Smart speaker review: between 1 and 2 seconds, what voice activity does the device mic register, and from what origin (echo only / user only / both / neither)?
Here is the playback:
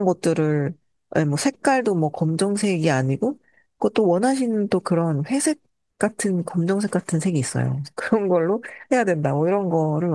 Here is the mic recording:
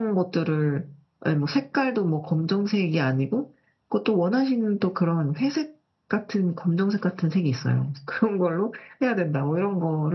echo only